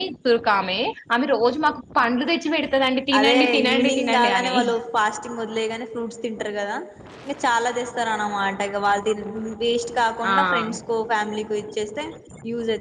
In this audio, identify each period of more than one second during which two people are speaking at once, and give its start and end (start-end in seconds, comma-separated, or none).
3.2-4.6